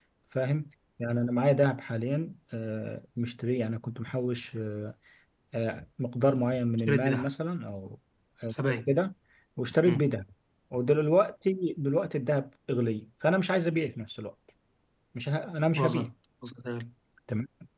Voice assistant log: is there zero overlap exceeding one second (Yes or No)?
Yes